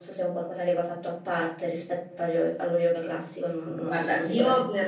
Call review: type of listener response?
taking over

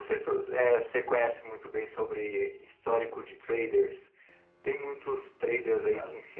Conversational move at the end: listening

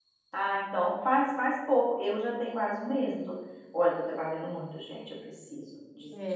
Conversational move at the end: taking over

